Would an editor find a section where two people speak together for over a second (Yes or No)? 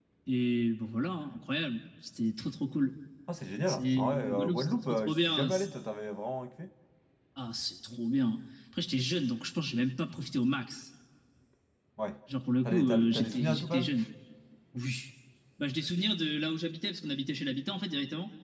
Yes